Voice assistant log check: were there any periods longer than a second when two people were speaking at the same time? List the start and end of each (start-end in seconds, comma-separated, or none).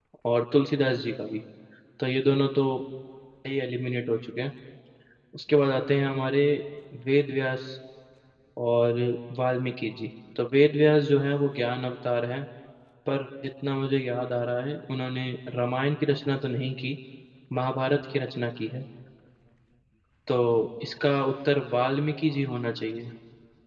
none